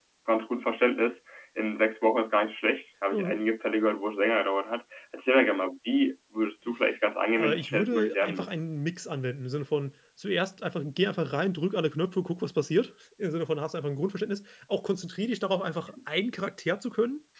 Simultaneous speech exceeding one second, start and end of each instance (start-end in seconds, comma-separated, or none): 7.4-8.8